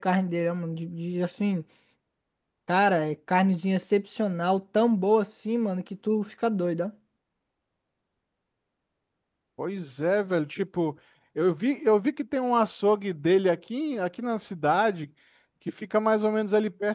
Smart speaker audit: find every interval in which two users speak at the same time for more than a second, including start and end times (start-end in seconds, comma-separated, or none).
none